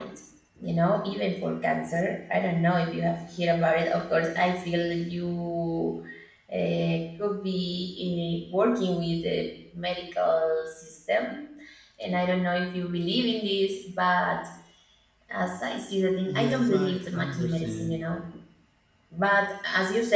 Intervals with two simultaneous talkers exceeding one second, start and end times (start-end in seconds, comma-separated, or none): 16.4-17.9